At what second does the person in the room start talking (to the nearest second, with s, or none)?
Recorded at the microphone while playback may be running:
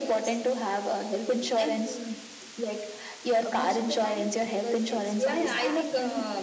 3 s